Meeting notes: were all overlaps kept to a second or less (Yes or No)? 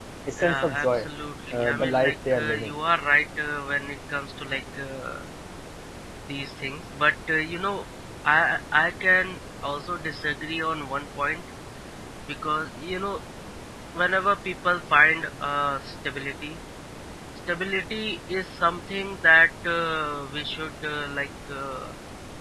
No